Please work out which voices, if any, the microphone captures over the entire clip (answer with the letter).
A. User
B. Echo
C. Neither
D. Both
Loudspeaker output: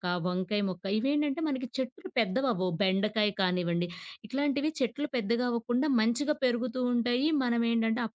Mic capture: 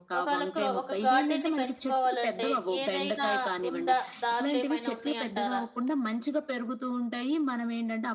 D